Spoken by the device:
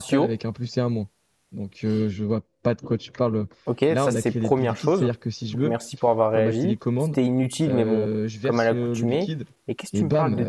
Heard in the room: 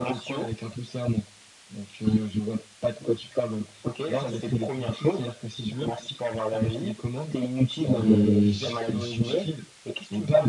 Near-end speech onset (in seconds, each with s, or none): 8.0 s